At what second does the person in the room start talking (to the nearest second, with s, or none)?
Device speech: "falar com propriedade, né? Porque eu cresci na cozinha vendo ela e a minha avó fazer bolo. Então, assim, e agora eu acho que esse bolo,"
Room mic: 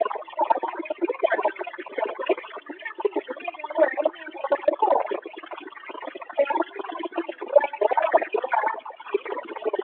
none